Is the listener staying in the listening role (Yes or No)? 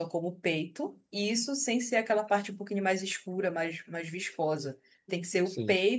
Yes